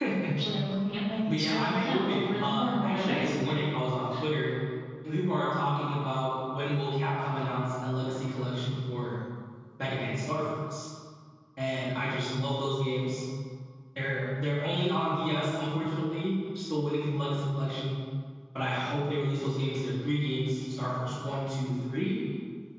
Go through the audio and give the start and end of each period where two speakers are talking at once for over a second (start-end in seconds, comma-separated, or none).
1.4-3.2